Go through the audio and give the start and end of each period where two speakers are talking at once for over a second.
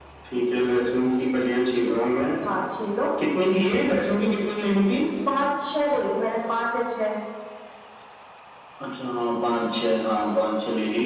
none

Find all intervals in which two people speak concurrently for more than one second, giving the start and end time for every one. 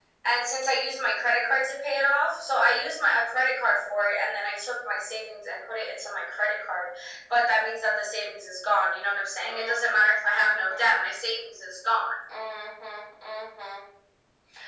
9.4-10.8

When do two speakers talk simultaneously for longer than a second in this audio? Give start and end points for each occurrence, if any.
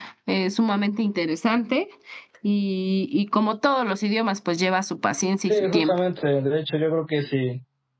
none

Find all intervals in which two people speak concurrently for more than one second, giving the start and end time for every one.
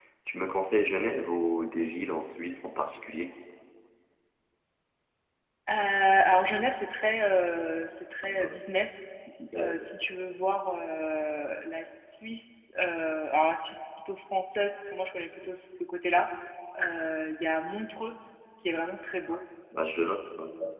none

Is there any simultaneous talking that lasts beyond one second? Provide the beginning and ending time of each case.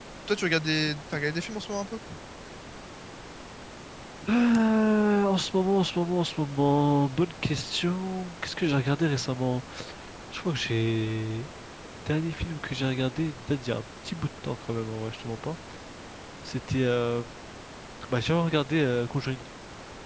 none

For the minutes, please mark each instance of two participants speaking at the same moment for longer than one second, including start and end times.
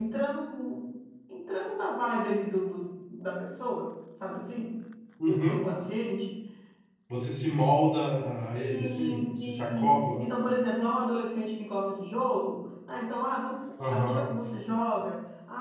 8.7-10.2

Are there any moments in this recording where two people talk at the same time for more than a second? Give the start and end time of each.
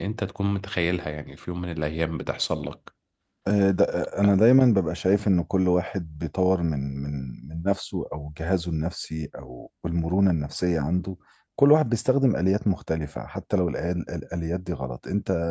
none

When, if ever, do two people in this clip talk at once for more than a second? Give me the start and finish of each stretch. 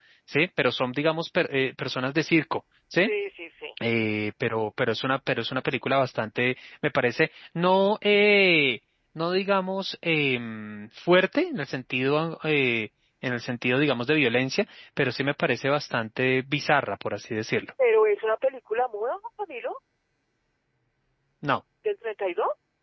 none

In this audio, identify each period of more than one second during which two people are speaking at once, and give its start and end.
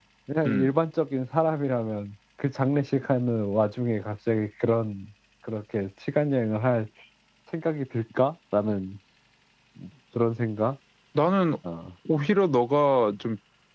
none

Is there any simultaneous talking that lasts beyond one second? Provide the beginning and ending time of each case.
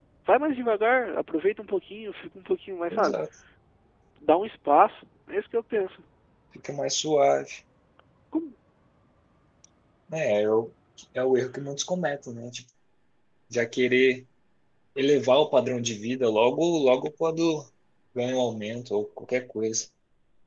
none

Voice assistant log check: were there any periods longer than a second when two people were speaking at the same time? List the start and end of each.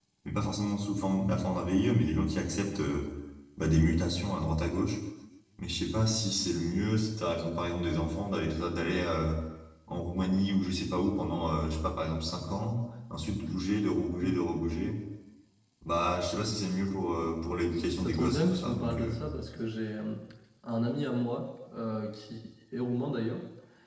17.8-19.2

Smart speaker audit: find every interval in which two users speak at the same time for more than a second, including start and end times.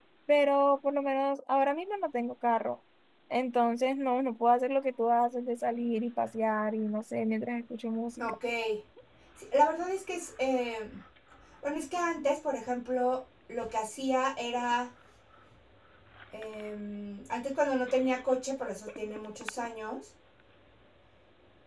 none

